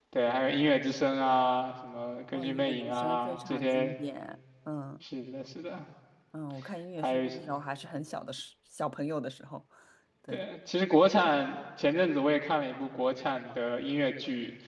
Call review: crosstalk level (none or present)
present